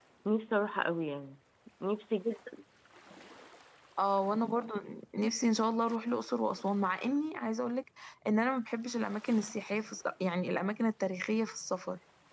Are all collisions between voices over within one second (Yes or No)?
Yes